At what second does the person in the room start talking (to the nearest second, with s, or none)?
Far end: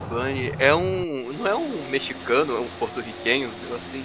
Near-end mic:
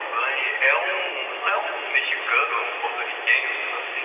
none